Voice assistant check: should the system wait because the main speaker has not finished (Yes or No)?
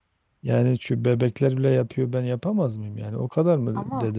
Yes